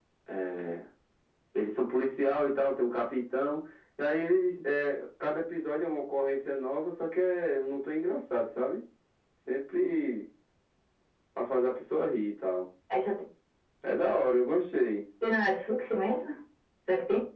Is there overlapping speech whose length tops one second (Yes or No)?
No